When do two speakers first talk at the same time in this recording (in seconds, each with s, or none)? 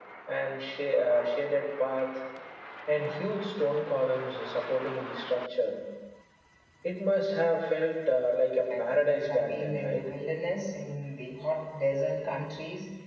8.7 s